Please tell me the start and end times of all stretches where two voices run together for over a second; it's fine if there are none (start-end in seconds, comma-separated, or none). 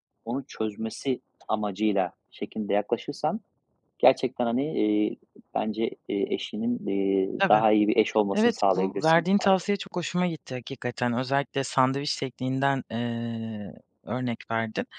8.3-9.6